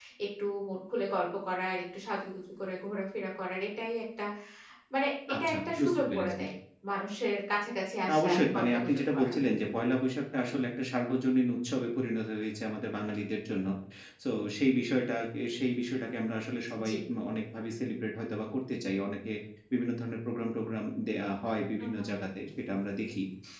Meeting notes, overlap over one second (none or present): present